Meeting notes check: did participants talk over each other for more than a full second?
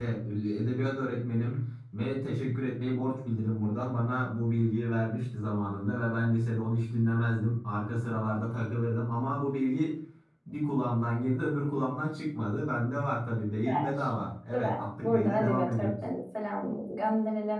Yes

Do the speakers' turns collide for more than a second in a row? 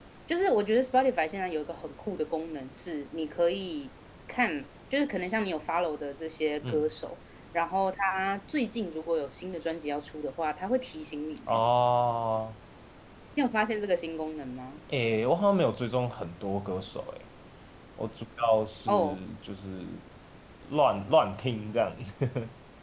No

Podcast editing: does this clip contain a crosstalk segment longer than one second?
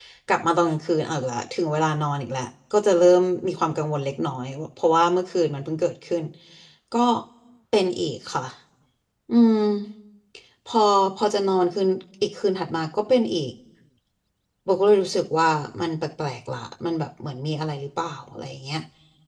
No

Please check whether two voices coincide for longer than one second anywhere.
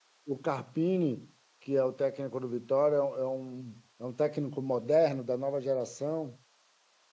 No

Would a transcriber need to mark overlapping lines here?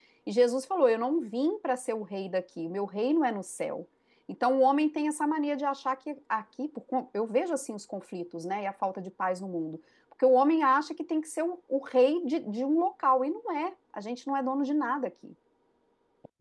No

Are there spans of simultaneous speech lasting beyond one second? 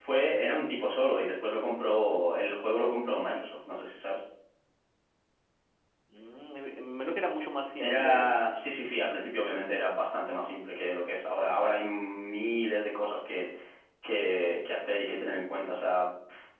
No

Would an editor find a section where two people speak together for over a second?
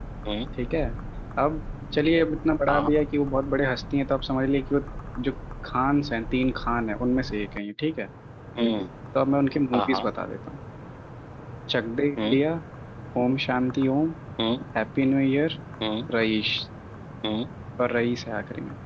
No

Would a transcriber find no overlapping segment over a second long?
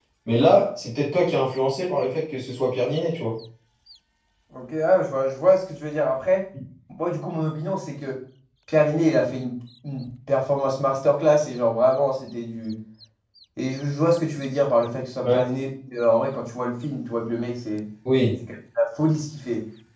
Yes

